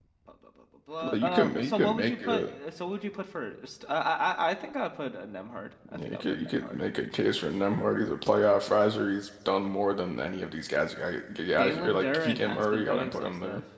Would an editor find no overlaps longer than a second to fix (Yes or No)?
No